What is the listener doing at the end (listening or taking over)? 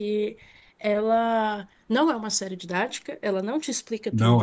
listening